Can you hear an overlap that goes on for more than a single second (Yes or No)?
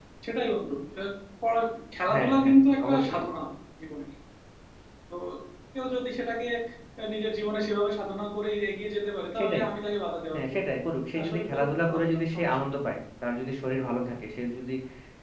Yes